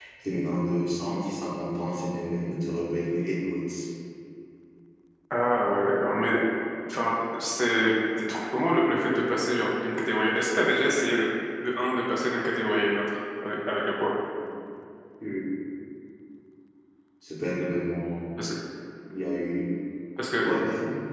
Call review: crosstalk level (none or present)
none